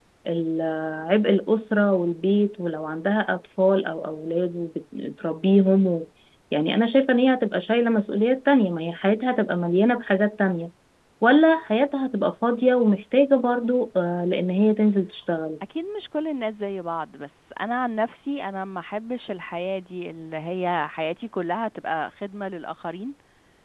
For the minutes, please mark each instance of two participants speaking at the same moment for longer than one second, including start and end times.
none

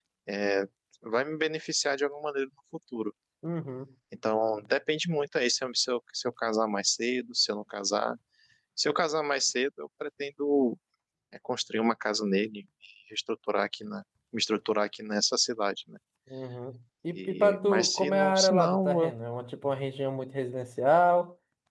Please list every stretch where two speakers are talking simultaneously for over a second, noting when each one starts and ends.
17.1-19.1

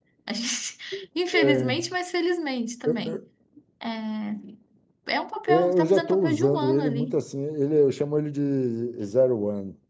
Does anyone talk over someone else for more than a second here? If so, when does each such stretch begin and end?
5.5-7.2

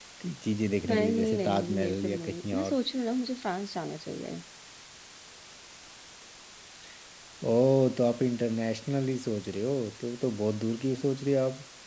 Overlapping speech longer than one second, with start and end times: 0.9-2.7

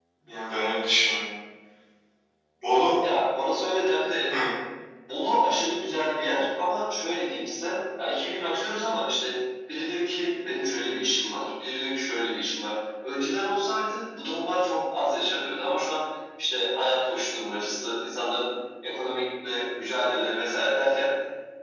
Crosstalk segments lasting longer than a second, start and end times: none

